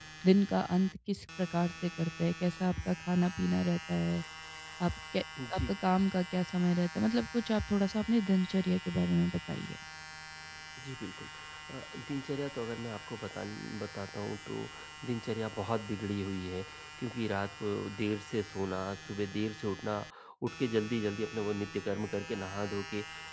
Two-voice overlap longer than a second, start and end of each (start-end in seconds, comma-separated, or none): none